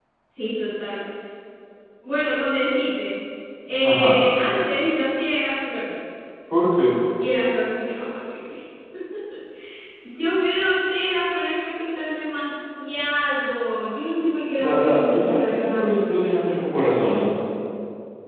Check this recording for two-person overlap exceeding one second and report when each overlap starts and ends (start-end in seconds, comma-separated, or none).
14.6-16.2